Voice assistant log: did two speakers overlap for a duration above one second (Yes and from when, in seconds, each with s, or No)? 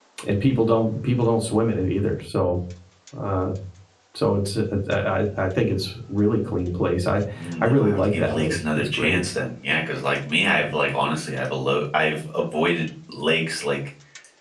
Yes, from 7.6 s